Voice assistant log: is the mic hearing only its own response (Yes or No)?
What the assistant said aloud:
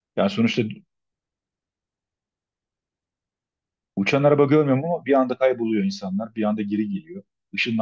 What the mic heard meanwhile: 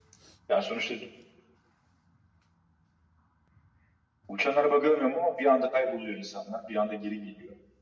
Yes